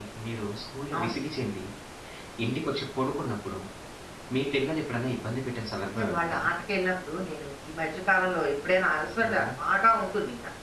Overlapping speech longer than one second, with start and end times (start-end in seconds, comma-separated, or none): none